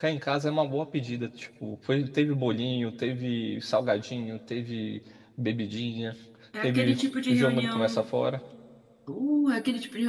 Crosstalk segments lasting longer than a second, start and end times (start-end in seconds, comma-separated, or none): 6.6-8.0